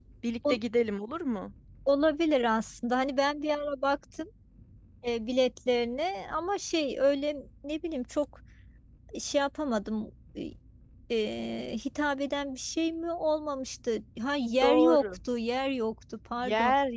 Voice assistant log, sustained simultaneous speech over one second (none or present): none